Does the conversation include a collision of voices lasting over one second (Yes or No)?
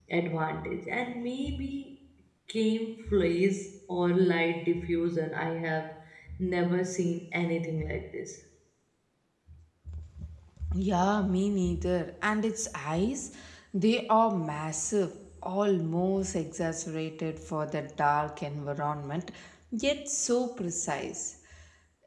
No